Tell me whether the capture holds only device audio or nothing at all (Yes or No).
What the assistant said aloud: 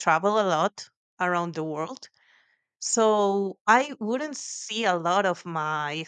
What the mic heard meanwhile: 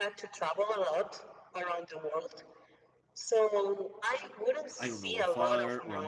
No